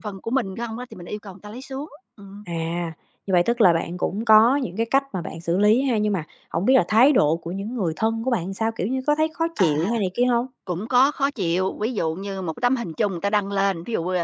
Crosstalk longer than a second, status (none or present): none